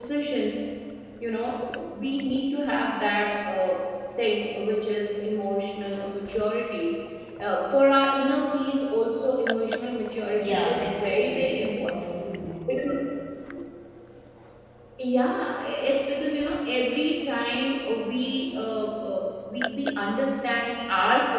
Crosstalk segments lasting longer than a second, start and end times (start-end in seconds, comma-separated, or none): 10.4-12.1